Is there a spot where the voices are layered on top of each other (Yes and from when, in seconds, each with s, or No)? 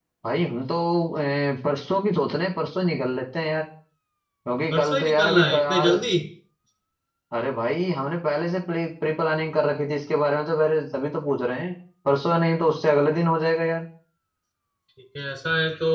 Yes, from 4.7 s